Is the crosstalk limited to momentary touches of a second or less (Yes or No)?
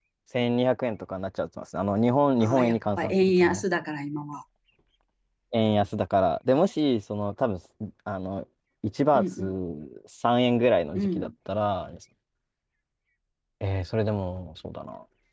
No